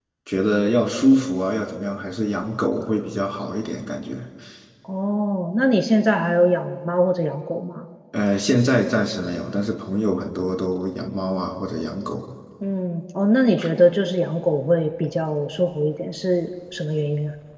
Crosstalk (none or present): none